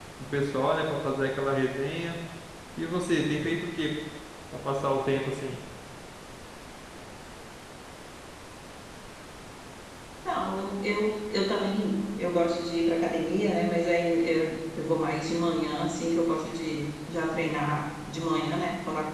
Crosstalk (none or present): none